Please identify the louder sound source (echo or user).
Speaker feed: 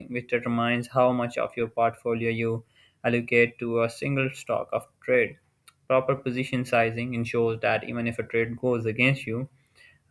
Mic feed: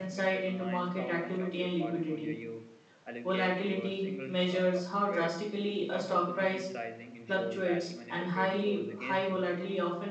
user